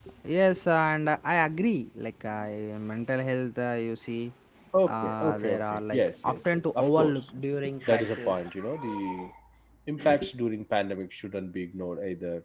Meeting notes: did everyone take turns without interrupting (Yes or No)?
No